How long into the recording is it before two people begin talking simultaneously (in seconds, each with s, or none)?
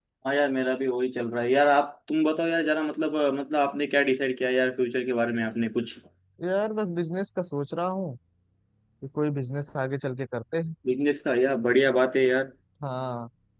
none